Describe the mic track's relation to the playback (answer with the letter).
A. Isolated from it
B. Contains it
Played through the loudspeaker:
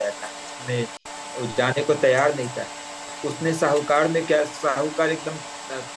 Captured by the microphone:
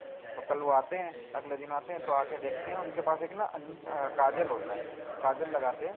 B